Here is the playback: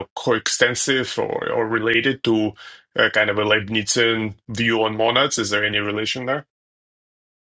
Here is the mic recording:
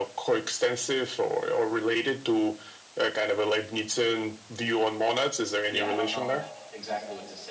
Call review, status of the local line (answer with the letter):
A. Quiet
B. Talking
B